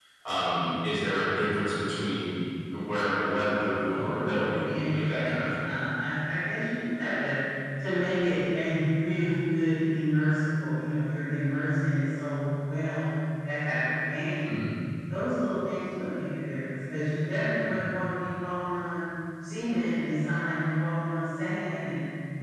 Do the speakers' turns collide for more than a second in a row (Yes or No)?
Yes